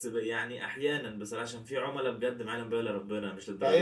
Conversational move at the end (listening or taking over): taking over